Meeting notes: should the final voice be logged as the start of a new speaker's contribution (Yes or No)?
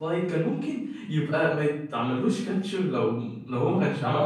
Yes